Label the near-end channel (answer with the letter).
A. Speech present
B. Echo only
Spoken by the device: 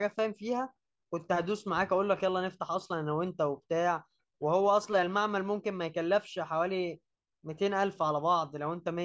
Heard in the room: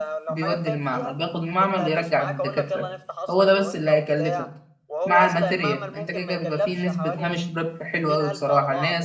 A